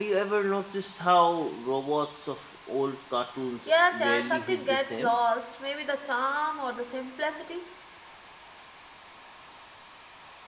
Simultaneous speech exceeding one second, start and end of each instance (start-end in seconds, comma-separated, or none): 3.7-5.1